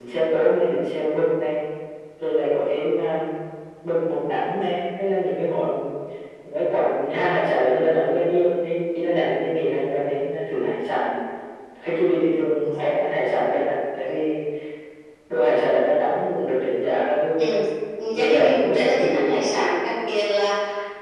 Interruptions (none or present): present